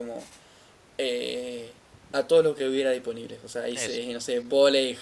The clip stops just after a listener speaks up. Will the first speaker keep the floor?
Yes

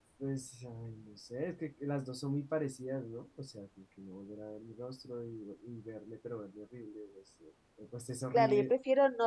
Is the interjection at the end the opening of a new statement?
Yes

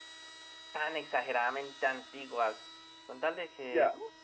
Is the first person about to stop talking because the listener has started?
No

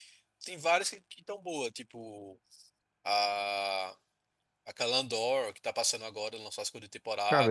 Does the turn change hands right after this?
Yes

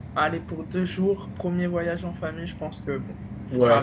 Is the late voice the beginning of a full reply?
Yes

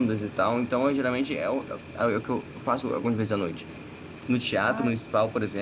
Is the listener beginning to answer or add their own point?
No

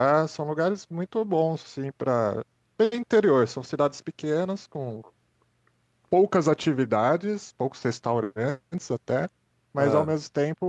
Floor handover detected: No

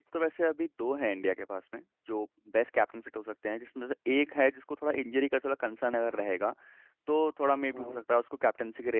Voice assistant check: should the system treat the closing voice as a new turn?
No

